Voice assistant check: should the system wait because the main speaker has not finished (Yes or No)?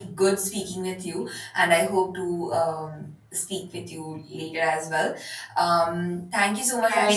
No